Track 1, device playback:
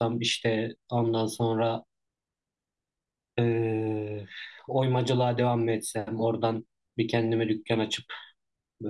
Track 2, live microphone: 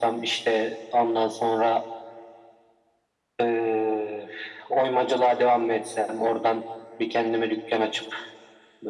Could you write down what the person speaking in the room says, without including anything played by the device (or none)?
none